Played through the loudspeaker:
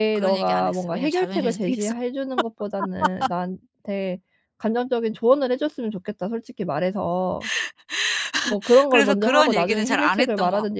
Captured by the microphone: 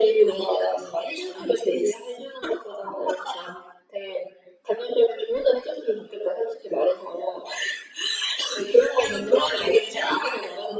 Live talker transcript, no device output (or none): none